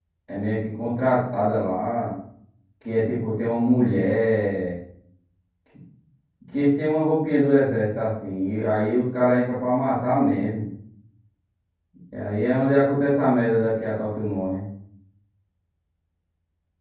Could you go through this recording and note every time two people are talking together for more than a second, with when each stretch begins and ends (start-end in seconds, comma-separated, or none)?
none